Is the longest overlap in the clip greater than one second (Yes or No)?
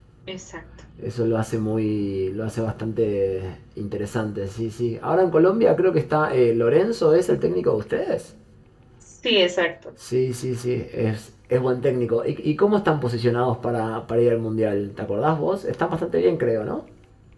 No